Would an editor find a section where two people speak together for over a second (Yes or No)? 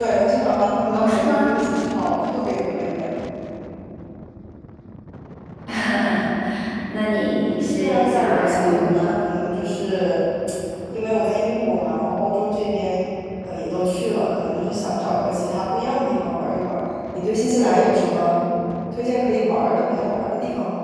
Yes